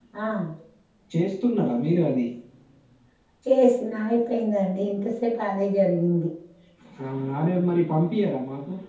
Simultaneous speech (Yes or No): No